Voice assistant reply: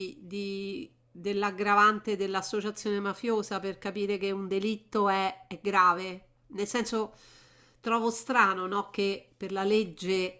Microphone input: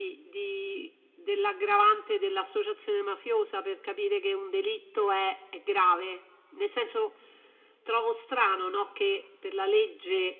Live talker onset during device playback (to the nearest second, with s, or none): none